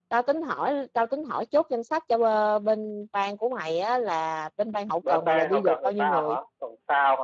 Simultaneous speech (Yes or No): Yes